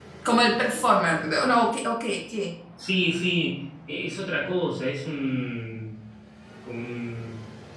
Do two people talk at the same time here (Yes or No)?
No